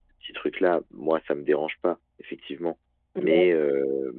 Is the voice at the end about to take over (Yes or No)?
No